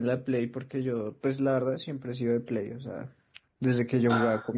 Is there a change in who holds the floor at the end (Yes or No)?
No